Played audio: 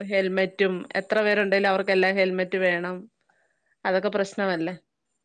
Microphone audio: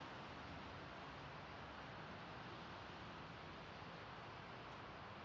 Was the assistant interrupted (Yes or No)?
No